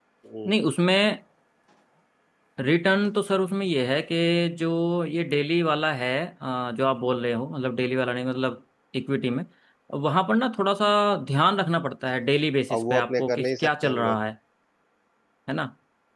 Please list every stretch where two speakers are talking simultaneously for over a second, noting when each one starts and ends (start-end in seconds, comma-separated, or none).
12.7-14.2